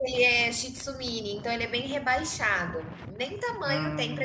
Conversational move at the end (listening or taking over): listening